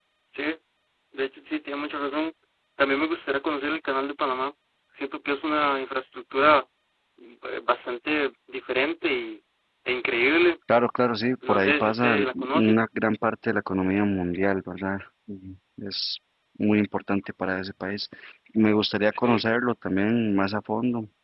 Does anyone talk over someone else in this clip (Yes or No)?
Yes